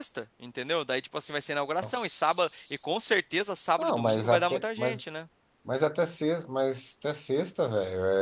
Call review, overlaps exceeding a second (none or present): present